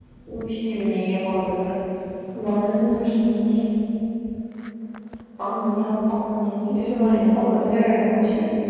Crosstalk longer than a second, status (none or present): present